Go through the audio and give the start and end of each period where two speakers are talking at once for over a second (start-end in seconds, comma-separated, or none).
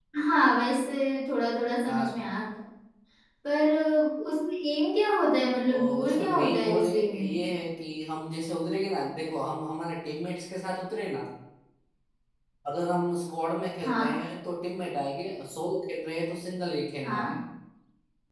5.7-7.3